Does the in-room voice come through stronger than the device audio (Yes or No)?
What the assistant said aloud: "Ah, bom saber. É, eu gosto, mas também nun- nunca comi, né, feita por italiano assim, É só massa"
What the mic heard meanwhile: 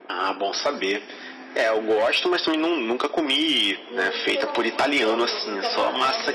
No